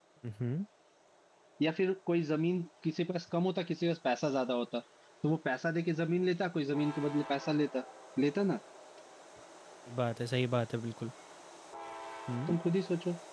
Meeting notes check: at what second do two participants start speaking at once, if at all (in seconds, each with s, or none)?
none